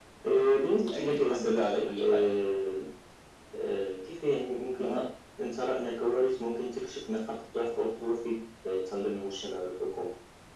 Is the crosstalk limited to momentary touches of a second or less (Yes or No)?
No